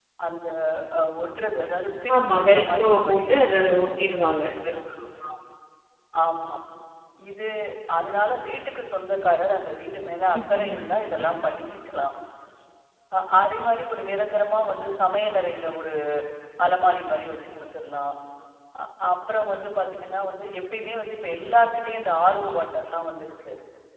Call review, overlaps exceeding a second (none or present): present